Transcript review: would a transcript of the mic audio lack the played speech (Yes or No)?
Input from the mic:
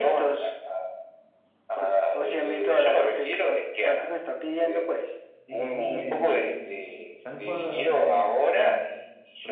No